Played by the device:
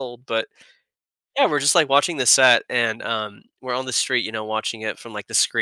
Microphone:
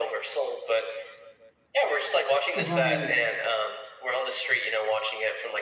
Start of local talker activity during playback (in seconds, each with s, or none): 2.6 s